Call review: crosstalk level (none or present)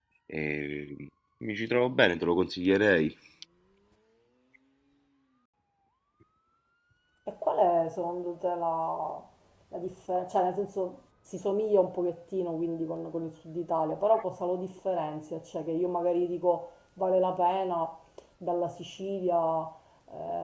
none